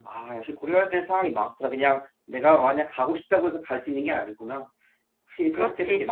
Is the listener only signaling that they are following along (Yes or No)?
No